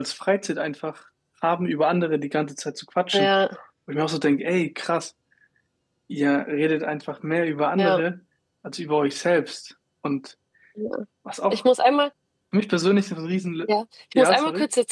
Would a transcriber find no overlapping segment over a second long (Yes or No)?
Yes